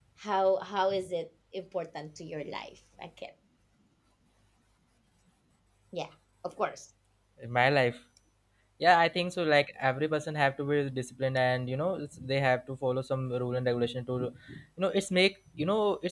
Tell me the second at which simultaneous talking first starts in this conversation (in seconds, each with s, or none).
none